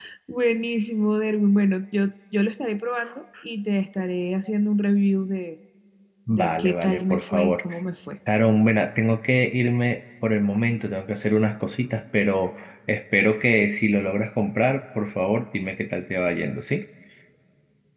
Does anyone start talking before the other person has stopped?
Yes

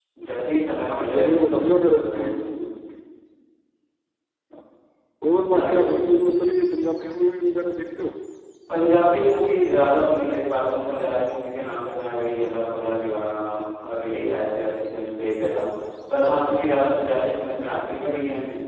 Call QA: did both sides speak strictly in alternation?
No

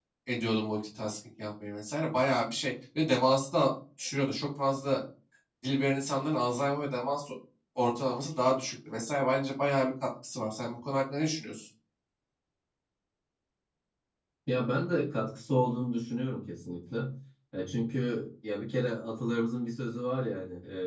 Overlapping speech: No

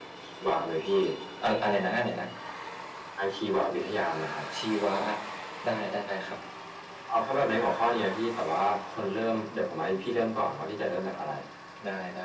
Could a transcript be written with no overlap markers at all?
Yes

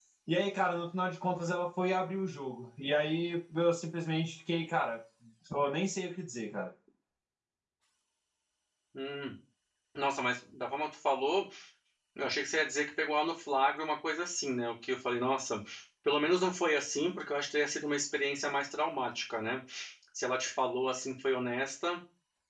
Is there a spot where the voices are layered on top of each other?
No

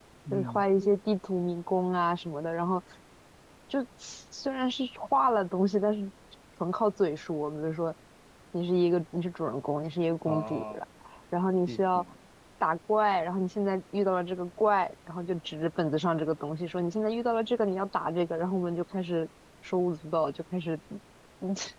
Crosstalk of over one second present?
No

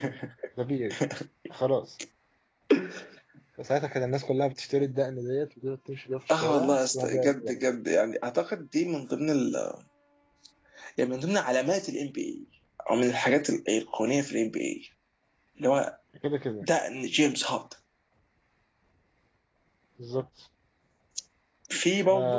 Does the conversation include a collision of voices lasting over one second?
Yes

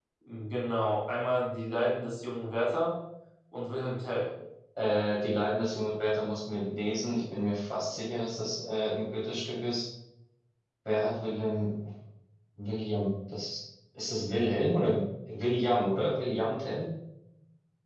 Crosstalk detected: No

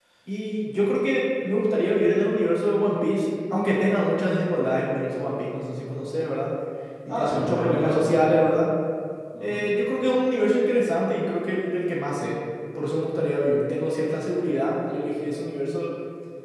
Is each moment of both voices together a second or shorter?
No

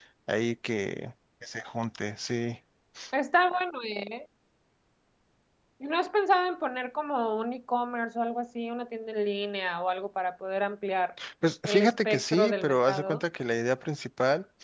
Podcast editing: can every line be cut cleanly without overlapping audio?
No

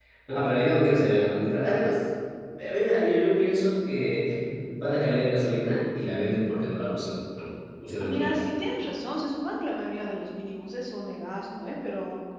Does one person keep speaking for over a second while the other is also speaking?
No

